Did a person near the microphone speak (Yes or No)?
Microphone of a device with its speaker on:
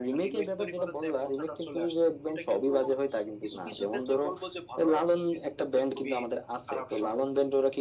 No